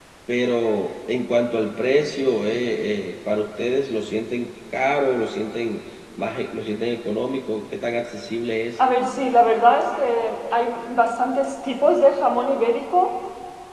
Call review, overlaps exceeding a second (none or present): none